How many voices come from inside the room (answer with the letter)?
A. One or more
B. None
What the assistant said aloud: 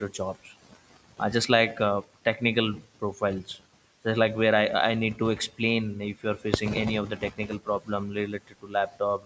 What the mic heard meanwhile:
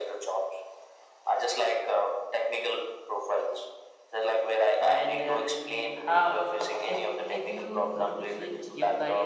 A